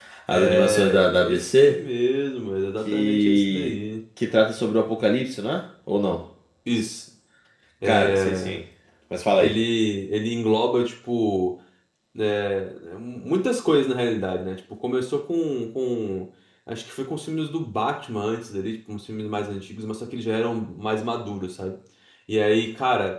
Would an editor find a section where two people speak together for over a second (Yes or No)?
Yes